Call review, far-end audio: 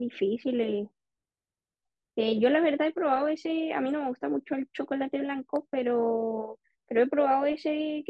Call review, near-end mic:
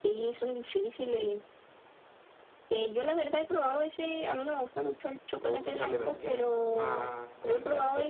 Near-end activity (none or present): present